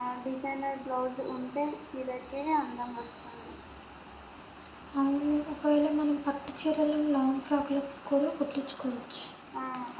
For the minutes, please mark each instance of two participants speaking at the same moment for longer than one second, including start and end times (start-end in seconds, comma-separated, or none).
none